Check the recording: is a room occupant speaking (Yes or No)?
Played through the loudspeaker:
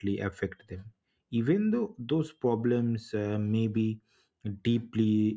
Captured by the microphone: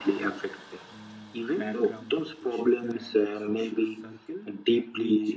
Yes